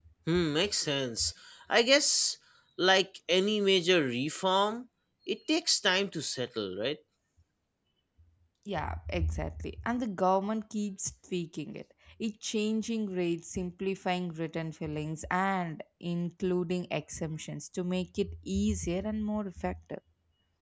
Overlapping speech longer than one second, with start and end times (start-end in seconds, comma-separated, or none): none